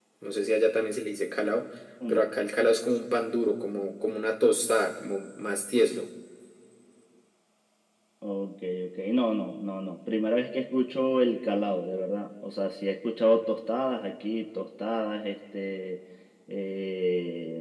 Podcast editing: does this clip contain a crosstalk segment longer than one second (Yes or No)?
No